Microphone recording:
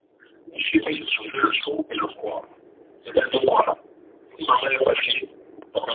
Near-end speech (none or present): none